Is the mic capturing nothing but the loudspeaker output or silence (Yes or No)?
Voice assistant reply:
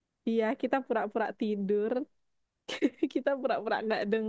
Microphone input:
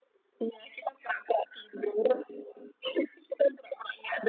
Yes